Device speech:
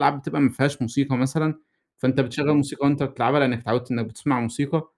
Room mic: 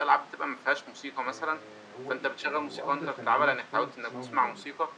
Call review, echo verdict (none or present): present